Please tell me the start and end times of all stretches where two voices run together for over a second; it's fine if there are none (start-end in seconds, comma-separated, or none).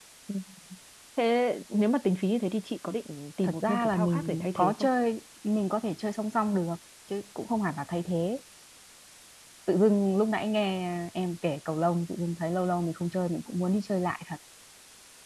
3.4-4.9